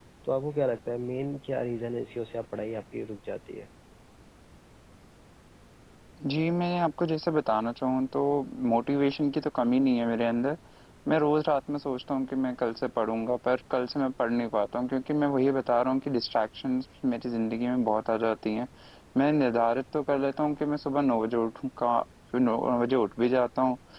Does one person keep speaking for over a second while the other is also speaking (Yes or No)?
No